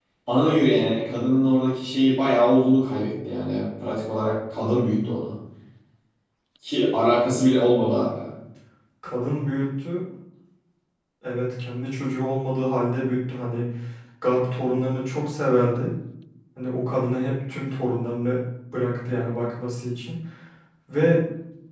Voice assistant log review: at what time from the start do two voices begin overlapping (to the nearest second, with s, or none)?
none